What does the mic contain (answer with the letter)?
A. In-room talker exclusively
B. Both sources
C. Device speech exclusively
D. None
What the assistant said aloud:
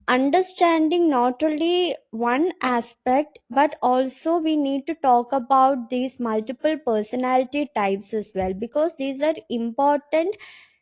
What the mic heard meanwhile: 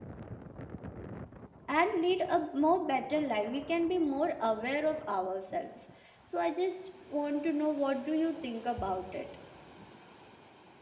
A